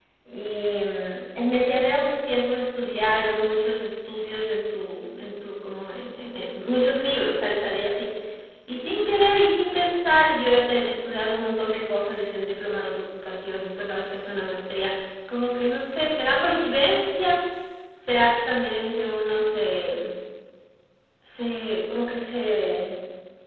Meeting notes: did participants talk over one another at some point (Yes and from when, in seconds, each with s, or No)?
No